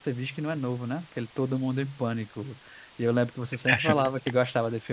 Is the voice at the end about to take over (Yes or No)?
No